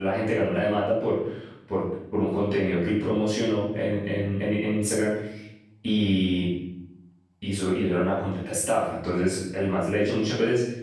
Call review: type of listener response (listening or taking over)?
listening